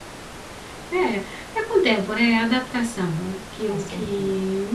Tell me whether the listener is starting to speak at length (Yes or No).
No